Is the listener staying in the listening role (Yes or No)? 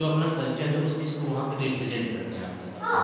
No